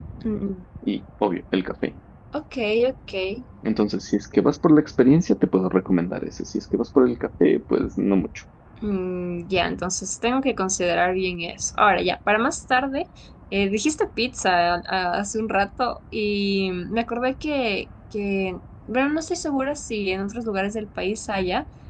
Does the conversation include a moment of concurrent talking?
No

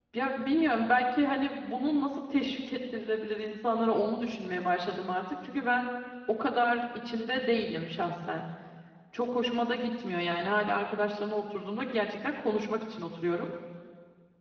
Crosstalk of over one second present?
No

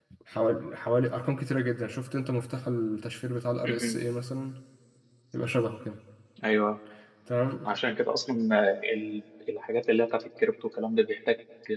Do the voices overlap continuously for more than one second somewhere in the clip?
No

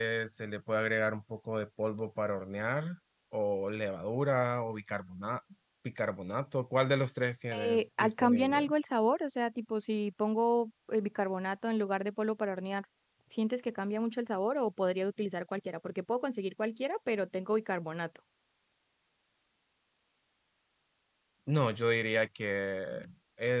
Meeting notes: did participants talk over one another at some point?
Yes, from 7.5 s

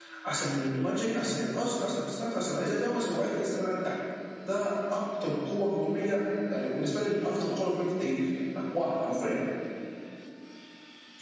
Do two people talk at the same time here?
No

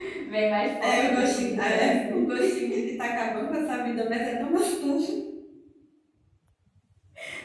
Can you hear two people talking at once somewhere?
Yes, from 0.8 s

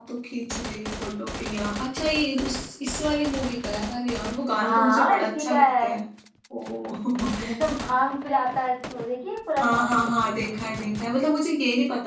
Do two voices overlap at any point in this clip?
Yes, from 4.6 s

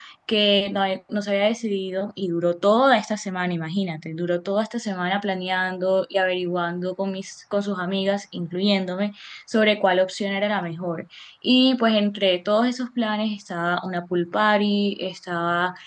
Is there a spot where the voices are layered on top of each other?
No

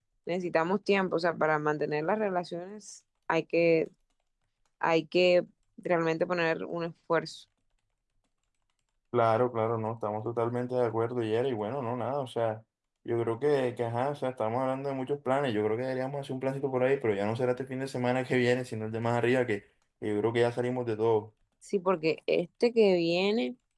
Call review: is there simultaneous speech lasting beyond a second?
No

